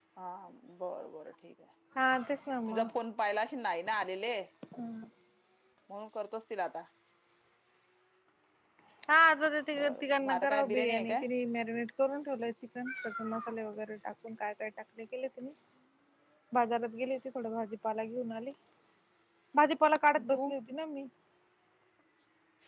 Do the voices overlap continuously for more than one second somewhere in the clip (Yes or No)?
Yes